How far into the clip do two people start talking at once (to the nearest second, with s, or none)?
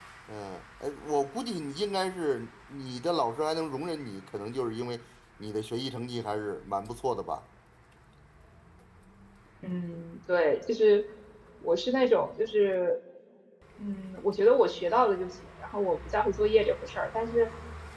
none